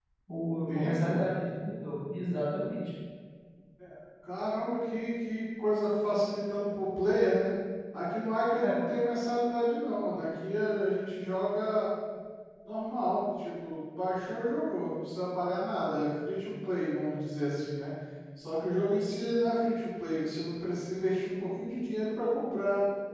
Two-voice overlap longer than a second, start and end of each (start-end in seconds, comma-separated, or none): none